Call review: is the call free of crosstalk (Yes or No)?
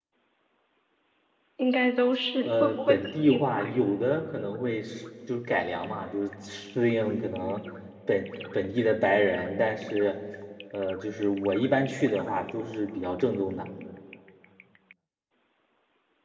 No